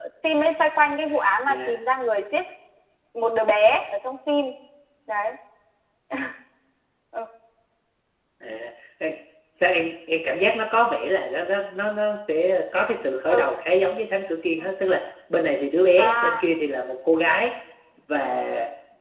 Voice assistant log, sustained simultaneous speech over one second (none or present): none